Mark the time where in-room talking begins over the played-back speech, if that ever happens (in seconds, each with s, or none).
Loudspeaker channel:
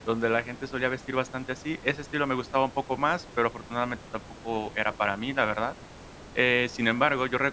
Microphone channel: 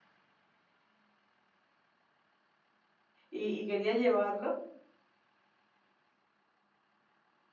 3.3 s